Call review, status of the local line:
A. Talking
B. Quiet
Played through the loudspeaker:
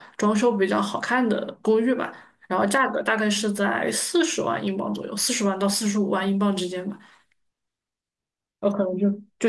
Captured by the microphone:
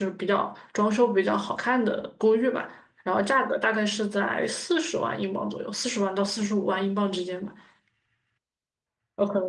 B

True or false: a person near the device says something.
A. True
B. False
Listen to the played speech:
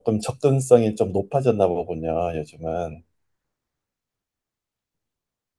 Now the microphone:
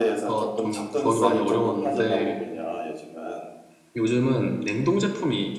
A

